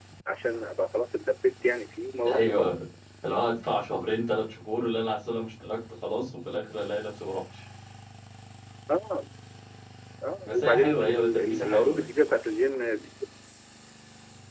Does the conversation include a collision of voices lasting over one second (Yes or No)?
Yes